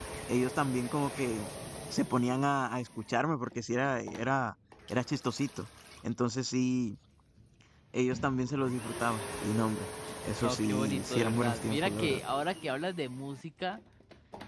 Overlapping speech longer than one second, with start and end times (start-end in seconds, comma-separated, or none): 10.4-12.2